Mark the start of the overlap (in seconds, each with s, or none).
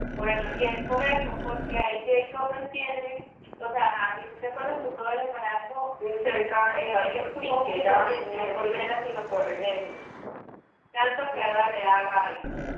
6.7 s